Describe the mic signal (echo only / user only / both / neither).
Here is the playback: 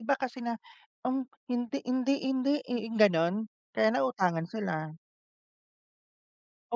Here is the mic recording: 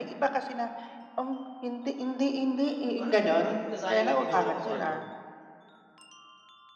both